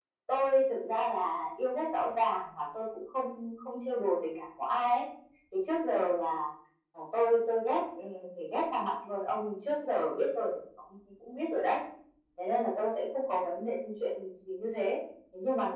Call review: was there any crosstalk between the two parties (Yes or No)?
No